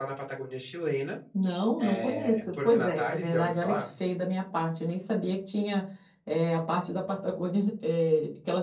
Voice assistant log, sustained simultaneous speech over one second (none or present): present